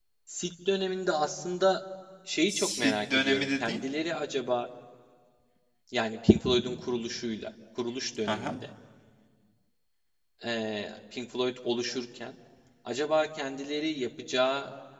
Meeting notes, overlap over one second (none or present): present